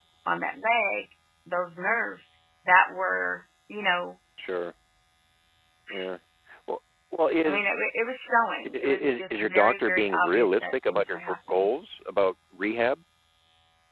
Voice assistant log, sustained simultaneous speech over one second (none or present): present